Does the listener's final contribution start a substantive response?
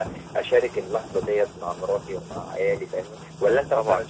No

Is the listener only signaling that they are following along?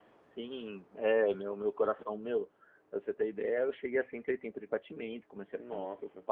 Yes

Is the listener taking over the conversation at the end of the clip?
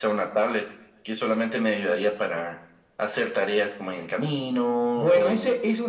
Yes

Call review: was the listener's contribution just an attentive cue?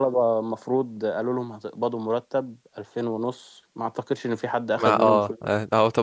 No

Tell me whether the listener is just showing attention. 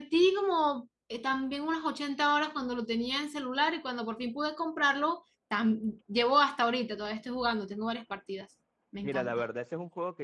No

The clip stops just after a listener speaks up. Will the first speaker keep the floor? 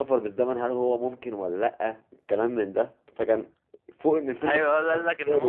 No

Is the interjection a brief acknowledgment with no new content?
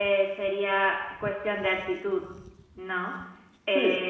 Yes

